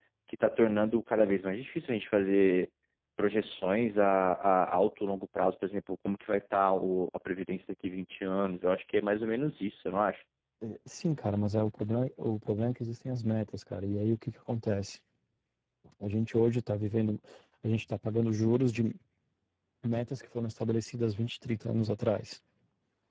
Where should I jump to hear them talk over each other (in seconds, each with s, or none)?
none